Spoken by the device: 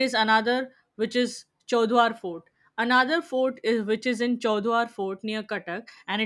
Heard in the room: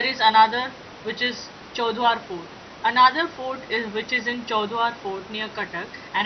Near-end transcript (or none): none